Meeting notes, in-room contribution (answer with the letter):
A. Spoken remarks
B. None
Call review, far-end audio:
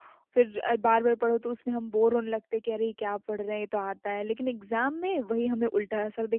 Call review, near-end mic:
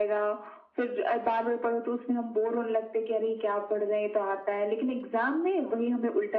B